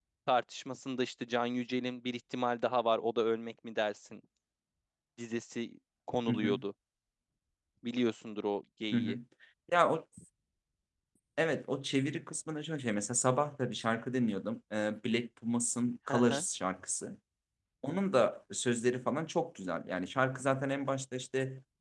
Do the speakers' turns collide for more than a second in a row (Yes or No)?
No